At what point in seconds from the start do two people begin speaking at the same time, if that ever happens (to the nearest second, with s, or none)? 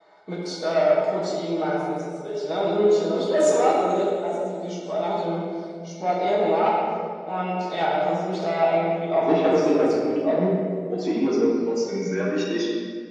9 s